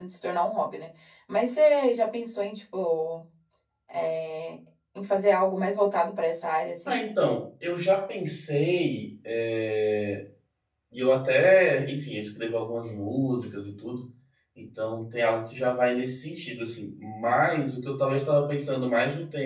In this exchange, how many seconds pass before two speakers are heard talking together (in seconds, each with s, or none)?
none